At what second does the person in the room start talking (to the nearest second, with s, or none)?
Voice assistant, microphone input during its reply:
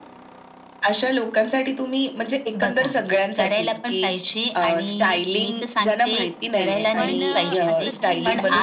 7 s